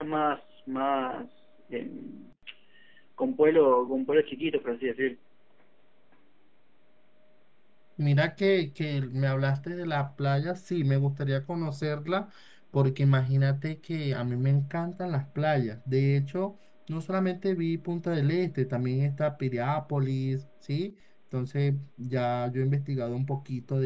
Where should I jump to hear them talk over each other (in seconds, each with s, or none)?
none